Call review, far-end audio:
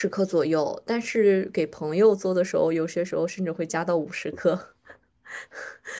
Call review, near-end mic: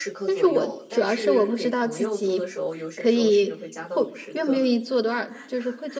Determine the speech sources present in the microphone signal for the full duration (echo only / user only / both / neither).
both